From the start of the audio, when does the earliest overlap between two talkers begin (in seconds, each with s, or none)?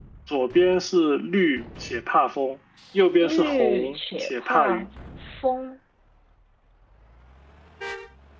3.2 s